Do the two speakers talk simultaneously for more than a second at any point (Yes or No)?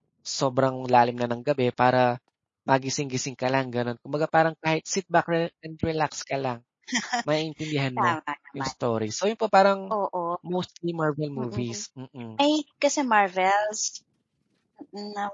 No